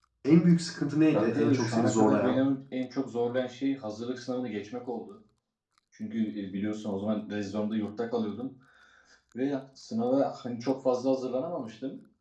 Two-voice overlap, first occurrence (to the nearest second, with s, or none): 1 s